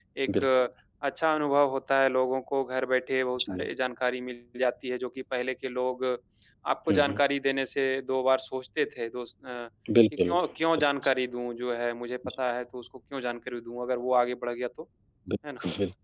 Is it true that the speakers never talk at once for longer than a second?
Yes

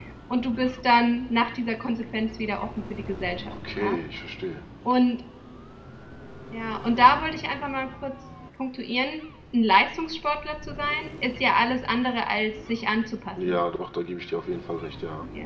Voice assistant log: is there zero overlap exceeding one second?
Yes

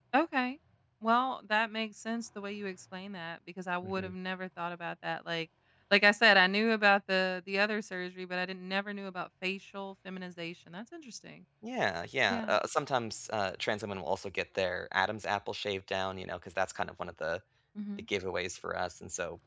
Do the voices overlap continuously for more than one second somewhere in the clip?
No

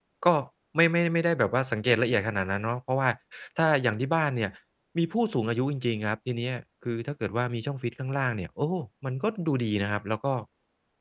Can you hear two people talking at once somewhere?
No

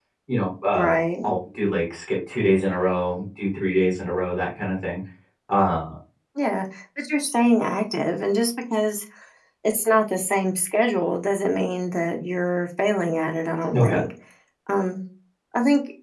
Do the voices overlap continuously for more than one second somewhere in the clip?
No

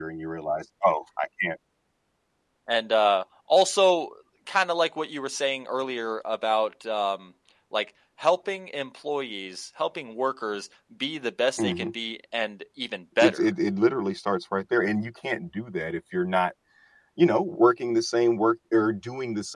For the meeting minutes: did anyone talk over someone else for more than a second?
No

